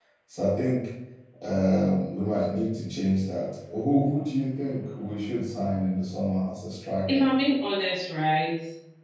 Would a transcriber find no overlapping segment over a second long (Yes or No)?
Yes